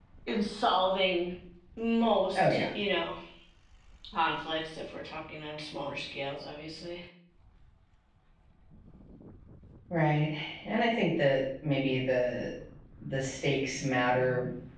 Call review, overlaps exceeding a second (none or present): none